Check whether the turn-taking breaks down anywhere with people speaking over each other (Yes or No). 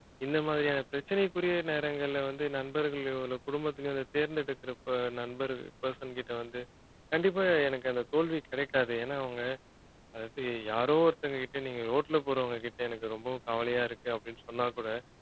No